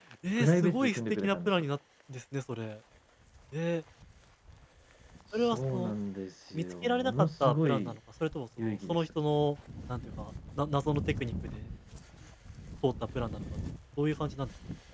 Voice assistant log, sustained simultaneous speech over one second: present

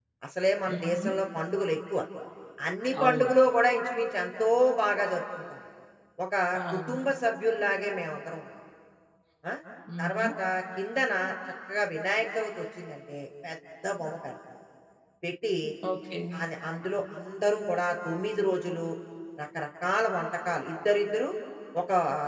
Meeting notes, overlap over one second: none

